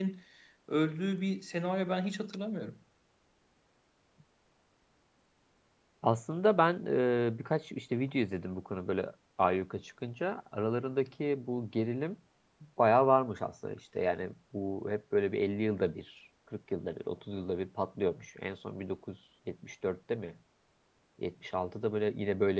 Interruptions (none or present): none